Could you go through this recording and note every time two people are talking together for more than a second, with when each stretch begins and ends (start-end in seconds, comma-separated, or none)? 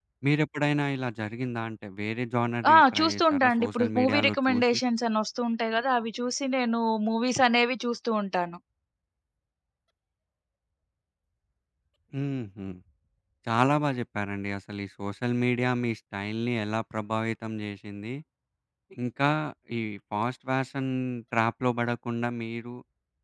2.7-4.8